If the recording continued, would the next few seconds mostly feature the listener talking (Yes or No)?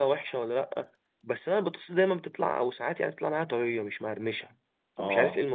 Yes